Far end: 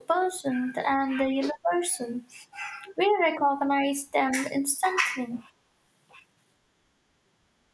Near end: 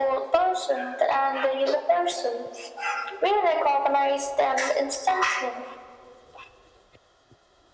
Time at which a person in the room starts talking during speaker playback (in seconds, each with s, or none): none